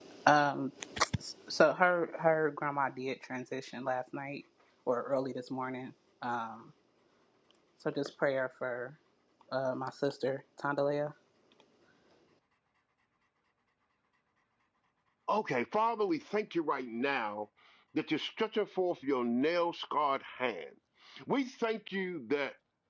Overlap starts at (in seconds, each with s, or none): none